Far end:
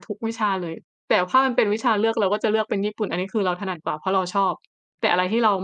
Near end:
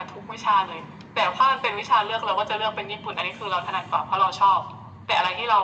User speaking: No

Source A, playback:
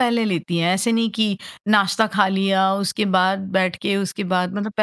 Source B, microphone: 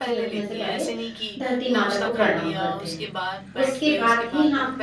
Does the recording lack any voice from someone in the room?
No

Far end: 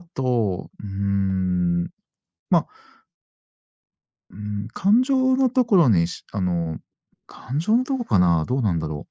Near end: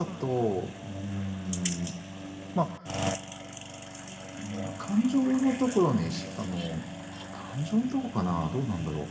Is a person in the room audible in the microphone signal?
No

